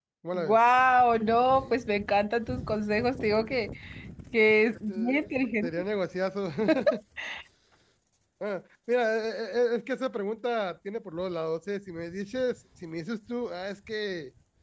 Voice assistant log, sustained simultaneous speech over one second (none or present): none